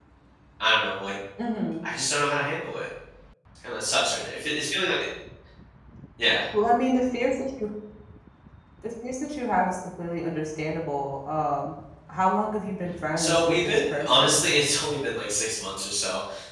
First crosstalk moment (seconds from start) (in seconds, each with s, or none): 13.2 s